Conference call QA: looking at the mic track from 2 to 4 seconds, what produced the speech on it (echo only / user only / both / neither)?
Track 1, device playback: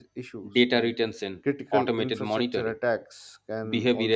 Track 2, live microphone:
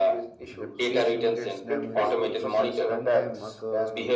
both